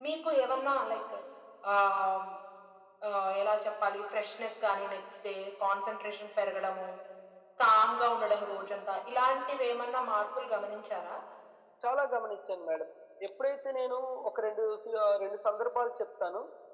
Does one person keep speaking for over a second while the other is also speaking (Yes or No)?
No